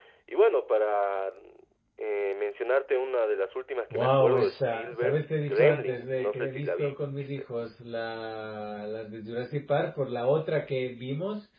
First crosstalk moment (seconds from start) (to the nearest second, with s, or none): 4 s